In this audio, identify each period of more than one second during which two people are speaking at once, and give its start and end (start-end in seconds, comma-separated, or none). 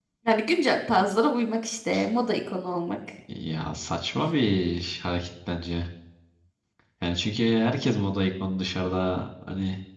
none